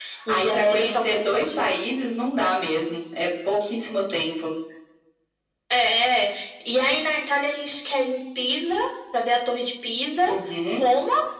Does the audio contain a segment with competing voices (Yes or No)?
Yes